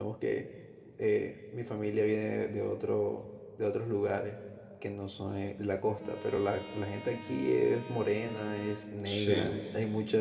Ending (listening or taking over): listening